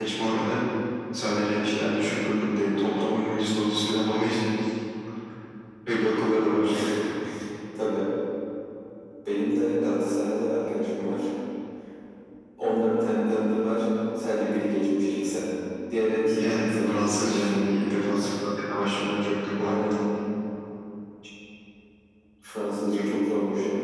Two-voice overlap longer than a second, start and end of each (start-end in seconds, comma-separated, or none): 16.2-17.5